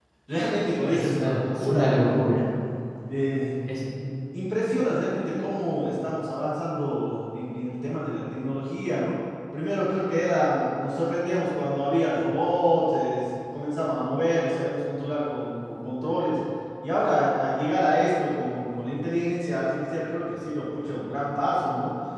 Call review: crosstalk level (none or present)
present